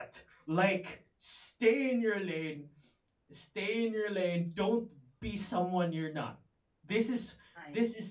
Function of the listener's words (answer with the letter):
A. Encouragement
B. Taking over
A